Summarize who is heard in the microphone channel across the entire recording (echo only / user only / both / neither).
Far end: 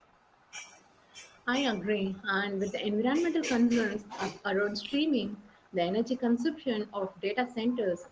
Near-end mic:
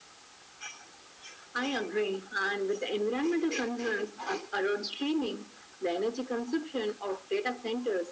echo only